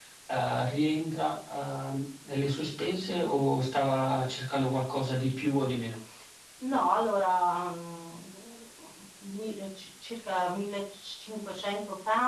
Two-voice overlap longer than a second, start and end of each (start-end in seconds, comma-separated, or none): none